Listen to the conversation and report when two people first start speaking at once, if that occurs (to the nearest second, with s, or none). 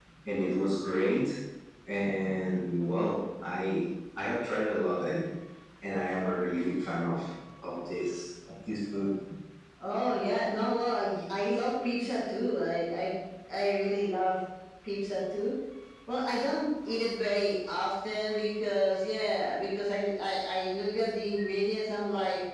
none